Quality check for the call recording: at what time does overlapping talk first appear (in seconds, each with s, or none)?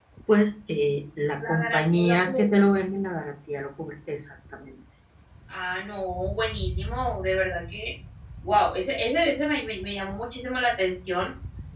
1.4 s